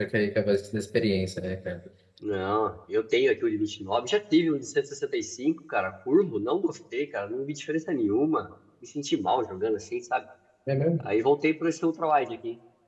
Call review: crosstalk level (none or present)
none